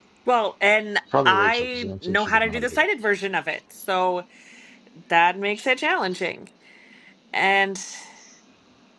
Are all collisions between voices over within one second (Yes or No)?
No